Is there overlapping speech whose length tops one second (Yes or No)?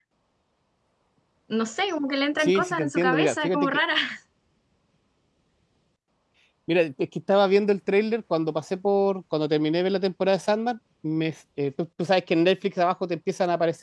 Yes